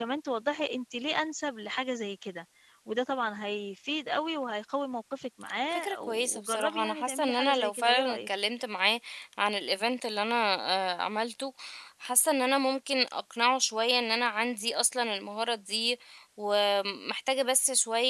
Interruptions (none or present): present